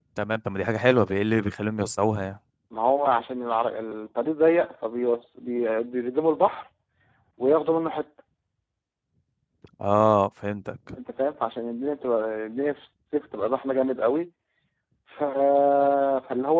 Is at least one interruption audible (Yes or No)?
No